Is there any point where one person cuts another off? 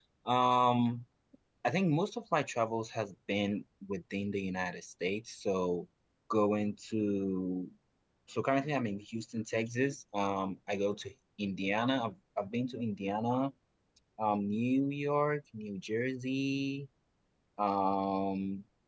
No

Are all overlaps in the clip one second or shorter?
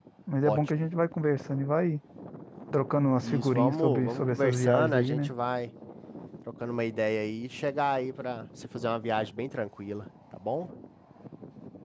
No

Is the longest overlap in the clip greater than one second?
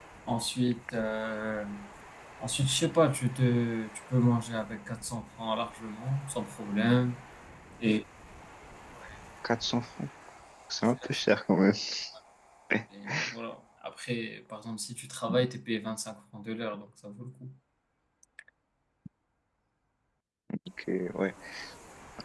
No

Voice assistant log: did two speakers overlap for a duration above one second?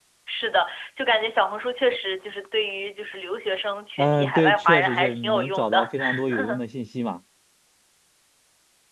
Yes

